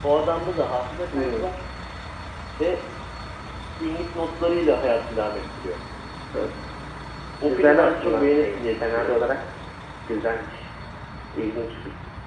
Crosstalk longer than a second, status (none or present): present